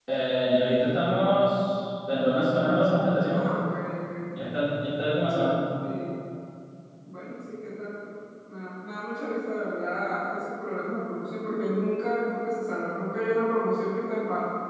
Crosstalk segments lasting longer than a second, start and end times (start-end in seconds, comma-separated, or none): none